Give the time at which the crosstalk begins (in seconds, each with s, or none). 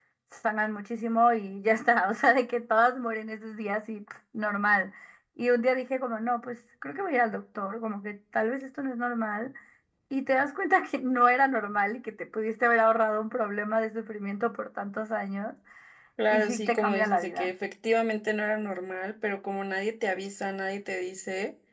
16.3 s